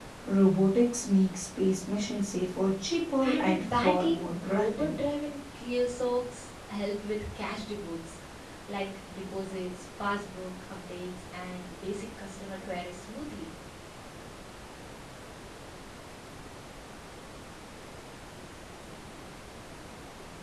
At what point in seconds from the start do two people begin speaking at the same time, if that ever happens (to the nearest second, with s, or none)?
3 s